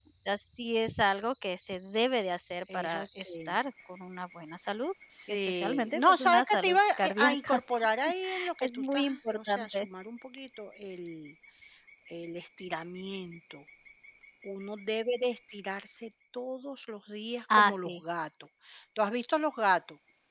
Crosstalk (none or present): present